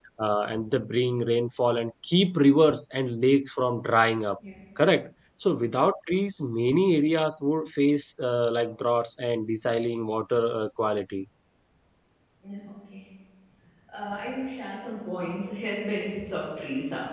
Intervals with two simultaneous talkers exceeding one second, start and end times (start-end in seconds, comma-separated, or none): none